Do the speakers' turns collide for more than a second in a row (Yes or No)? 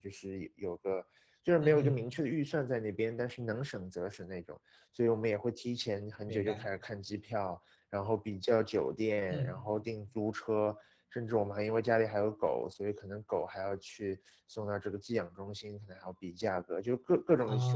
No